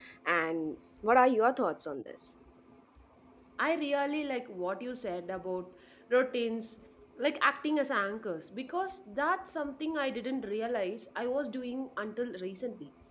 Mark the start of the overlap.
none

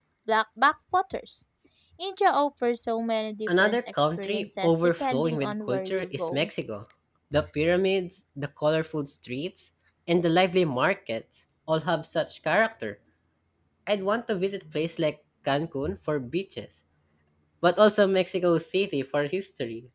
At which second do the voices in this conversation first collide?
3.5 s

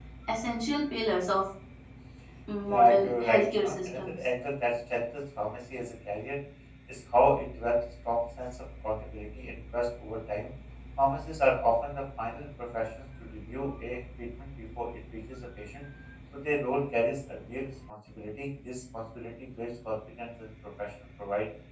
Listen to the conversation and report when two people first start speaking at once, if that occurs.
2.7 s

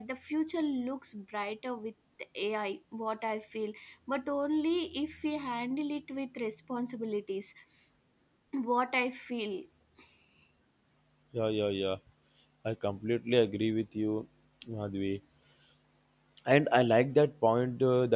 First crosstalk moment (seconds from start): none

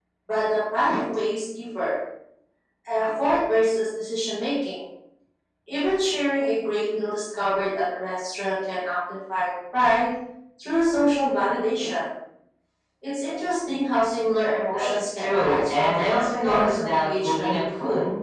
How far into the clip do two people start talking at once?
14.7 s

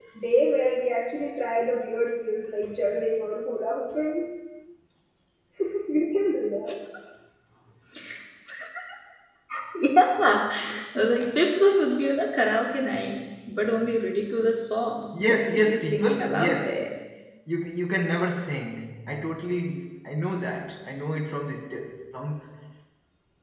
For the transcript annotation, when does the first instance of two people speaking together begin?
15.1 s

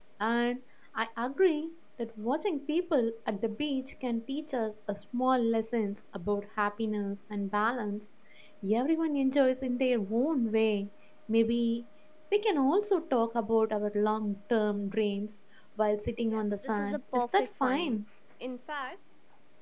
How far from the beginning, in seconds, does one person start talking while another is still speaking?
16.3 s

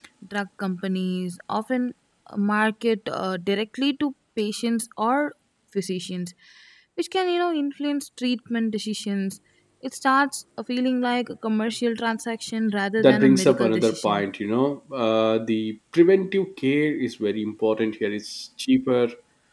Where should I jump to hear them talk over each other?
13.0 s

